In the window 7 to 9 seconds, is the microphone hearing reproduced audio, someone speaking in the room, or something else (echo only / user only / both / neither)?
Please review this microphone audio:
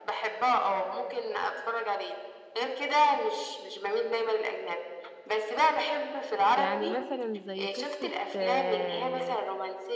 both